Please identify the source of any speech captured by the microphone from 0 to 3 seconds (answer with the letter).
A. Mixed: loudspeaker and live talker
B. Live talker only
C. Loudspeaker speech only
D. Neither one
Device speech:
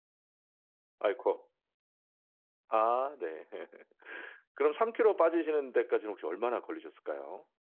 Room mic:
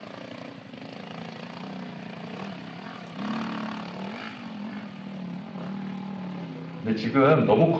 D